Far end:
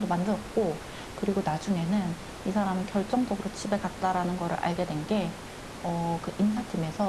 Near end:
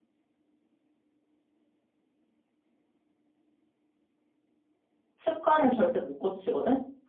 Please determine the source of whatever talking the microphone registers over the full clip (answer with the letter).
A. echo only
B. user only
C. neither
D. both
B